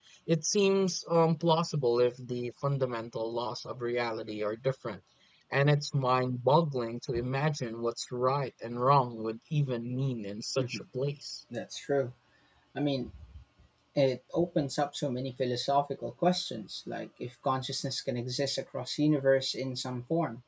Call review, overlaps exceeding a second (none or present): none